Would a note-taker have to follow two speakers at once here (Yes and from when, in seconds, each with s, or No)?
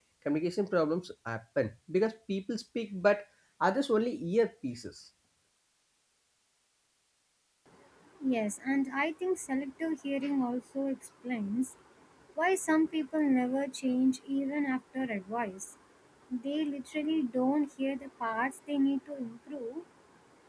No